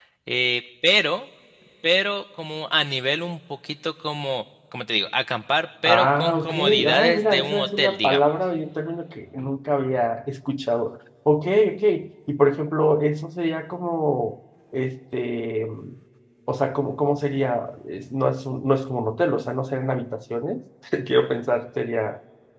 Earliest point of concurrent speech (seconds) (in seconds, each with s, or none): 5.8 s